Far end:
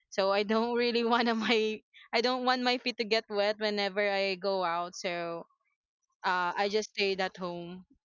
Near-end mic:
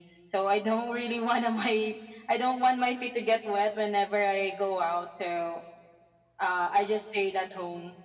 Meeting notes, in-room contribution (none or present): none